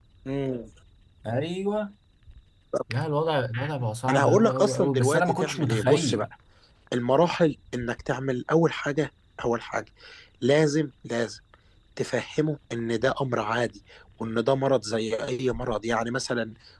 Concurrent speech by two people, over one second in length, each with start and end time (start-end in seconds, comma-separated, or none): 4.1-6.3